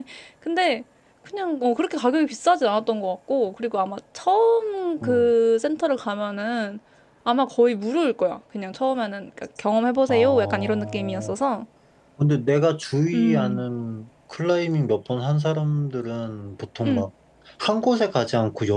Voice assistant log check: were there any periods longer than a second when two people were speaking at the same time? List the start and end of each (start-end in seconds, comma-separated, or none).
10.1-11.3